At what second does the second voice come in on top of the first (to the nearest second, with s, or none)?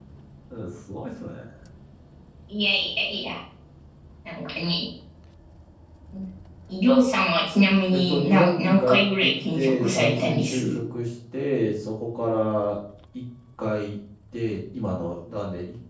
8 s